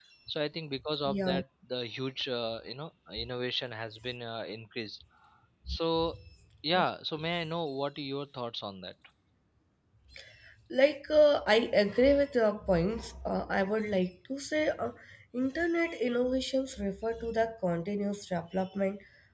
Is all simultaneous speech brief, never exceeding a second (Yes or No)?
Yes